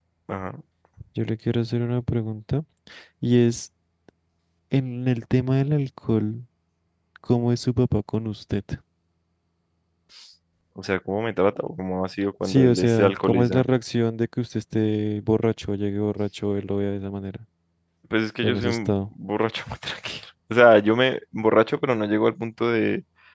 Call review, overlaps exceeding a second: present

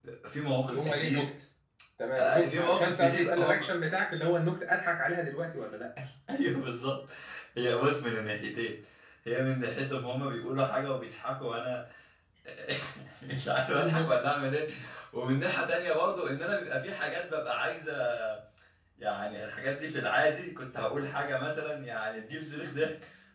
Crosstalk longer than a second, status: present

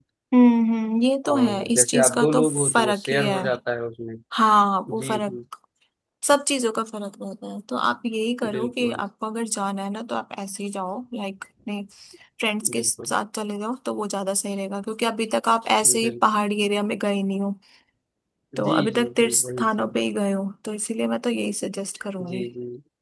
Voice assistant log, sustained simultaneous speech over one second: present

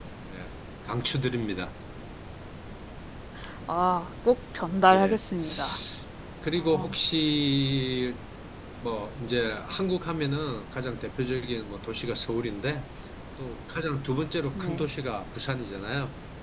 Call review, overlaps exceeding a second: none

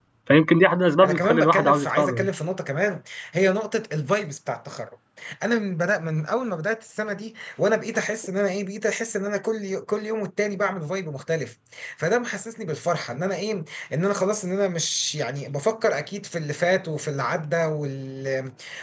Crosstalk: present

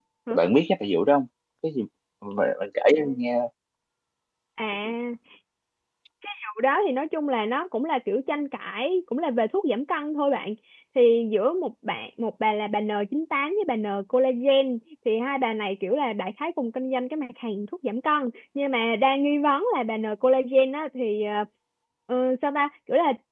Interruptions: none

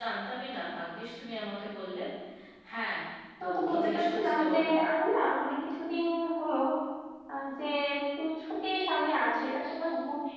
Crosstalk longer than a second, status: present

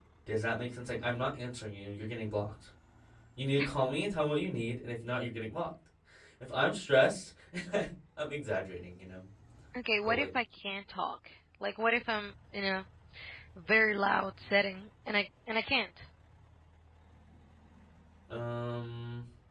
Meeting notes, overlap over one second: none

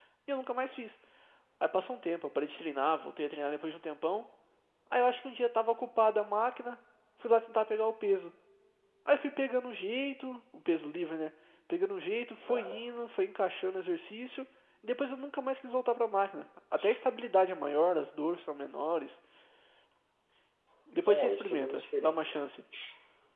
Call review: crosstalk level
present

